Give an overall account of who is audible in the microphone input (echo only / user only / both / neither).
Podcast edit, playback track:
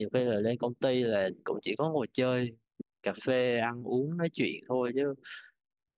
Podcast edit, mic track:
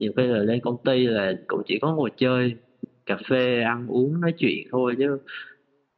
echo only